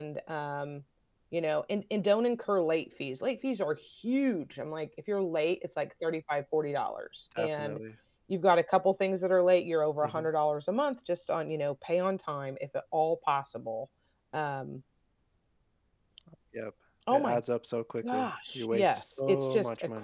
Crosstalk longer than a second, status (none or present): present